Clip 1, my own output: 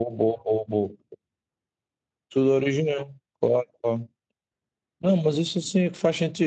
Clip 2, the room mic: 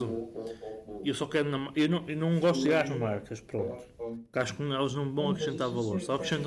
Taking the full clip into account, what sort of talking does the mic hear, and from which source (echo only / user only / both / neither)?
both